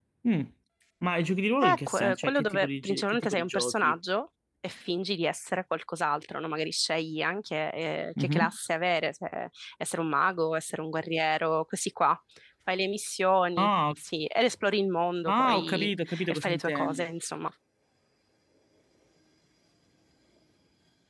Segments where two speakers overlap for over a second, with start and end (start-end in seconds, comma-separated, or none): 1.6-3.9, 15.3-17.1